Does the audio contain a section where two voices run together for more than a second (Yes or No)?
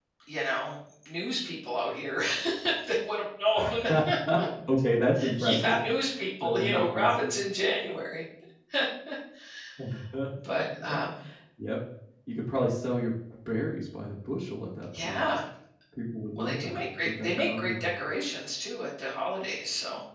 Yes